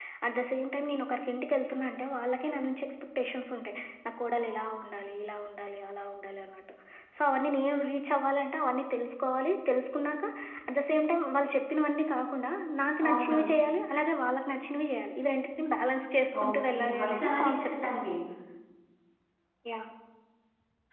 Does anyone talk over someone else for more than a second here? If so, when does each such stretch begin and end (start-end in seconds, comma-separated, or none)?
16.4-17.7